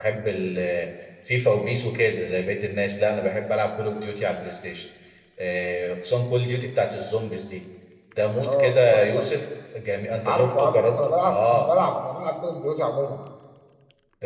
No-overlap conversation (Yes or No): No